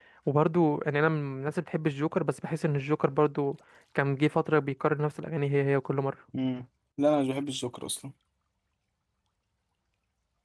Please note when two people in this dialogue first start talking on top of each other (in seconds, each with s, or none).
none